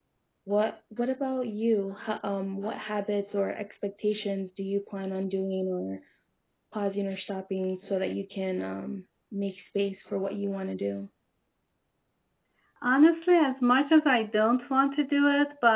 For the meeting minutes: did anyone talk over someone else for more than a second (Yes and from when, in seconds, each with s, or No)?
No